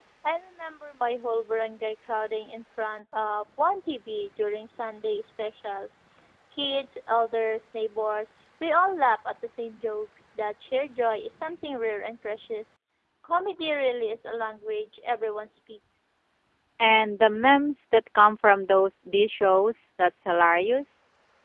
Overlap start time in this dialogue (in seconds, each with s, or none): none